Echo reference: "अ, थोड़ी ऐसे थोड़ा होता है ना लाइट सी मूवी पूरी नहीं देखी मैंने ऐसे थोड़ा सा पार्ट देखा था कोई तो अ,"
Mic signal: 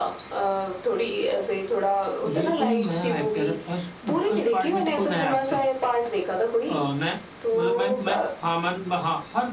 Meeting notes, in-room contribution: present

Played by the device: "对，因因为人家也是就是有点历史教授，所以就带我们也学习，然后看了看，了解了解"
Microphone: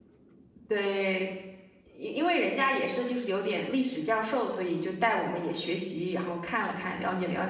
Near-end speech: none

